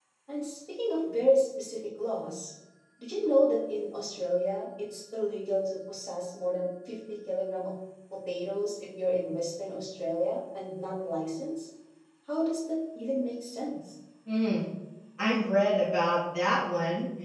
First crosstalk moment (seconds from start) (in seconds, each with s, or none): none